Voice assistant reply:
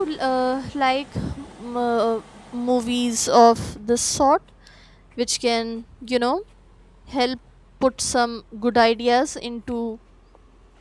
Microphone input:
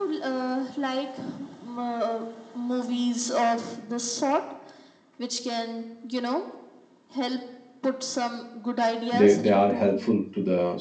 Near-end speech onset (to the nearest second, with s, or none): 9 s